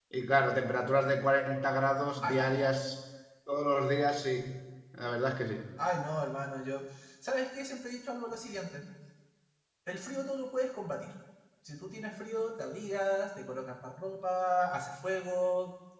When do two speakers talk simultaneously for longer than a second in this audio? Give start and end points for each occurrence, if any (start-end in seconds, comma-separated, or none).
none